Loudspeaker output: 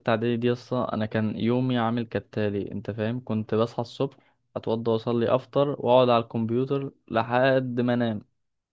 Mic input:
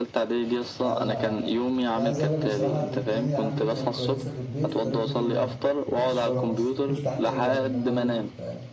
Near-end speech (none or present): present